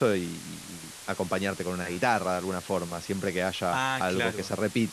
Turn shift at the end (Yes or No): No